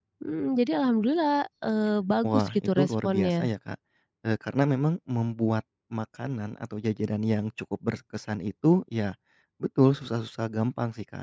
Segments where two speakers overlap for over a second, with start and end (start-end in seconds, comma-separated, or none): 2.2-3.5